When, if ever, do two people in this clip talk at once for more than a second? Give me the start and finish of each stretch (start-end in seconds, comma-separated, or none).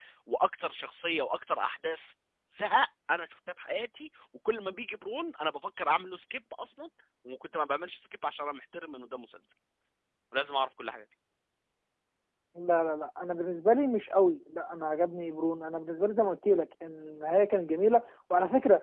none